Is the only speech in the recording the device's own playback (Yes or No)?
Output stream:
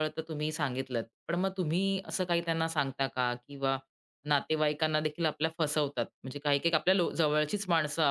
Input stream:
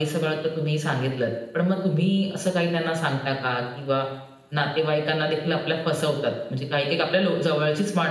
Yes